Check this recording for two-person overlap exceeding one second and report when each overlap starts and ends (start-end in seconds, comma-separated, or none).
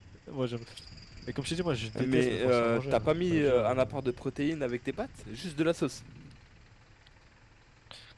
2.0-3.9